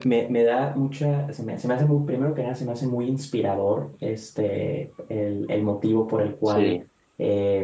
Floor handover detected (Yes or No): No